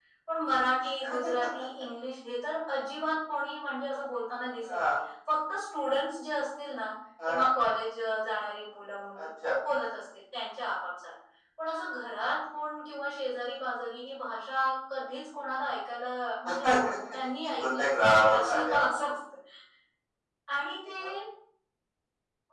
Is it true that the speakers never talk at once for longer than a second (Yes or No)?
No